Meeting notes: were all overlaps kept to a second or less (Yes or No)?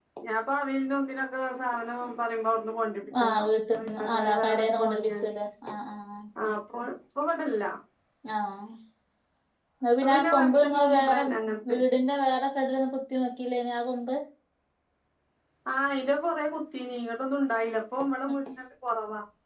No